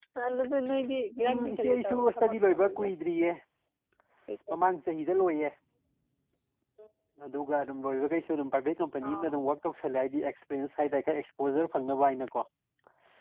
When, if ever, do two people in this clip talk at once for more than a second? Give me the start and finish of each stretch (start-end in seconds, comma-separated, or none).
1.2-2.9